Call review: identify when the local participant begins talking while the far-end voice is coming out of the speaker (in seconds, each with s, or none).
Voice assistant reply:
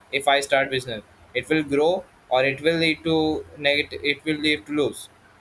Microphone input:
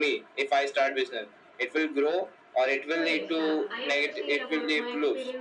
2.9 s